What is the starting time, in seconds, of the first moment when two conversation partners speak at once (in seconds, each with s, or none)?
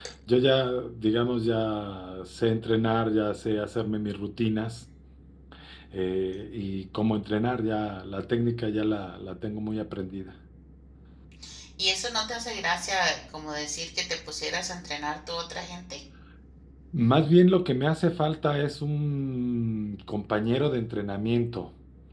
none